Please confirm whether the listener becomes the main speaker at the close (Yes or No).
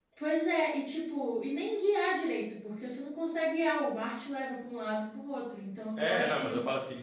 Yes